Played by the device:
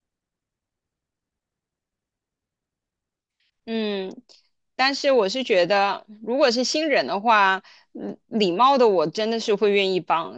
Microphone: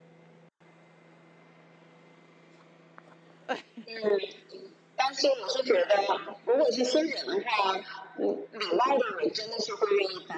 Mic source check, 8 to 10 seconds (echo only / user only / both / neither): echo only